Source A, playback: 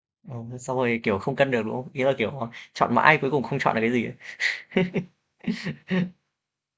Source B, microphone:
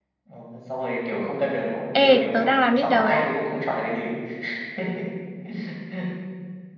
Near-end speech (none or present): present